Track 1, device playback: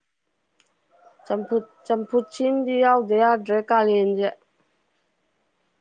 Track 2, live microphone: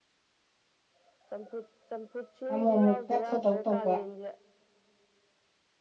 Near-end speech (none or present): present